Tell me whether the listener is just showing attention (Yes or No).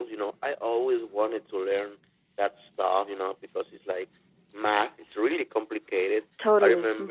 Yes